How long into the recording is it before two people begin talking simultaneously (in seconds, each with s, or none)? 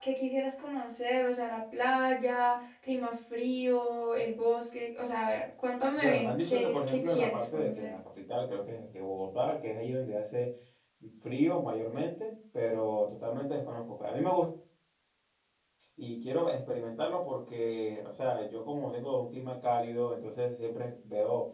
6.0 s